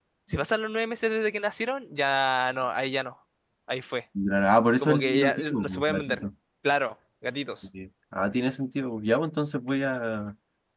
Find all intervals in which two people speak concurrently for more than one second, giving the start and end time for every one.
4.8-6.2

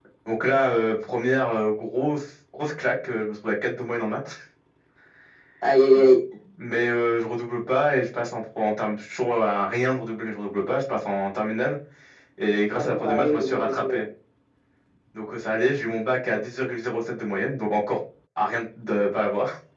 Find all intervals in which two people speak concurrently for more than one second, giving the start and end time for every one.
12.7-14.0

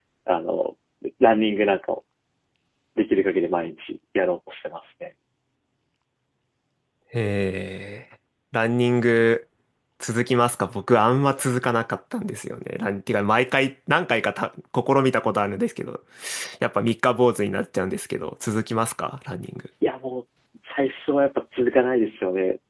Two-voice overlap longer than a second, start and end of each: none

